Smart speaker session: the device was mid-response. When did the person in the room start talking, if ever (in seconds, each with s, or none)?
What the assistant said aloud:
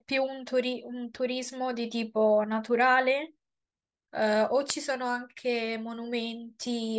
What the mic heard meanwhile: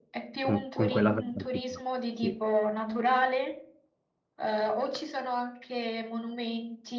0.4 s